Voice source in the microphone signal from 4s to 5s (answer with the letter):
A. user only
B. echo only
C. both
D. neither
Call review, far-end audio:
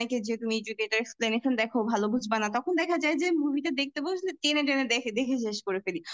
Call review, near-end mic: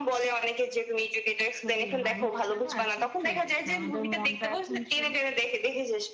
C